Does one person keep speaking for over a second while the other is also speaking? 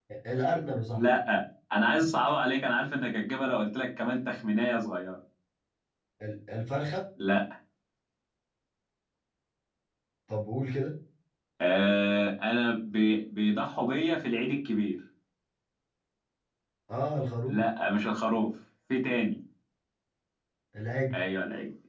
No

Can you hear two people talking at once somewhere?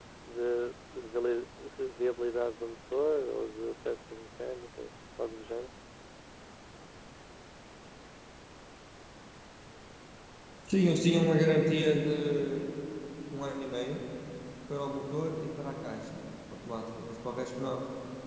No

